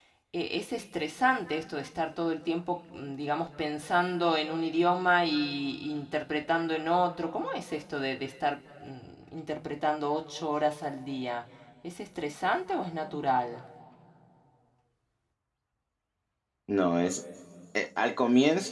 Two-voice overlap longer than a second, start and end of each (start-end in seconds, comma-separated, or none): none